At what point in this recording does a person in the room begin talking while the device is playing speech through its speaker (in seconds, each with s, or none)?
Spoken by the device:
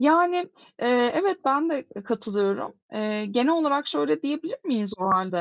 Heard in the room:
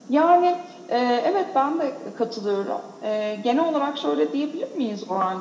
none